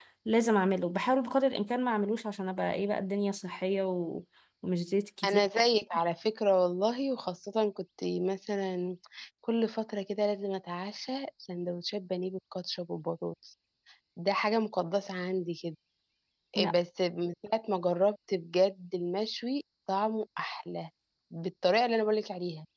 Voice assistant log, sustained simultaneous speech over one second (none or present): none